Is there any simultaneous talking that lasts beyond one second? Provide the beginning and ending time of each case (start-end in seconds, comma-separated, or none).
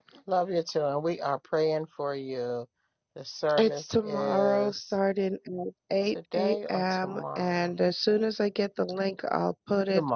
3.6-5.0, 6.3-7.7